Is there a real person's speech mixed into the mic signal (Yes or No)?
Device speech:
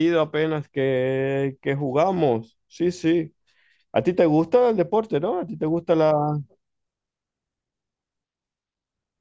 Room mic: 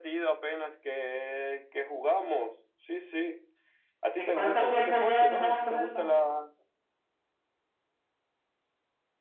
Yes